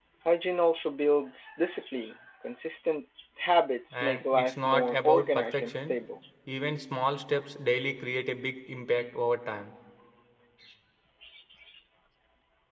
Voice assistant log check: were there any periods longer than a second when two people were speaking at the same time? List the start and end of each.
3.9-6.0

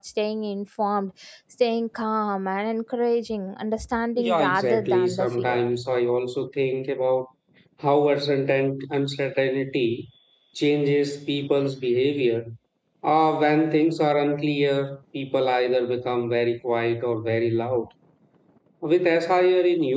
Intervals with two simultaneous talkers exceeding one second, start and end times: 4.2-5.6

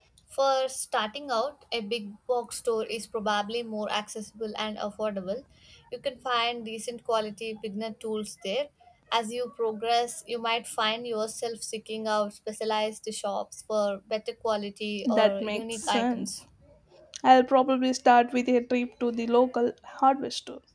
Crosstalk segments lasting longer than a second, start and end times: 15.1-16.4

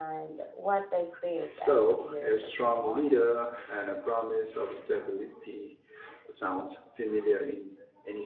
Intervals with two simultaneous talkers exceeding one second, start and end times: 1.6-3.1

